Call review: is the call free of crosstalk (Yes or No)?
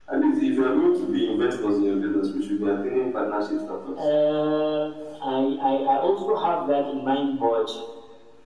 Yes